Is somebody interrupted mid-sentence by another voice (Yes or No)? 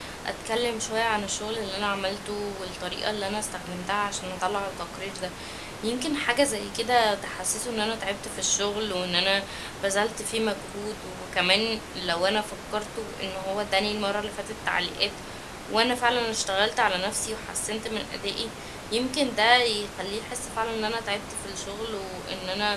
No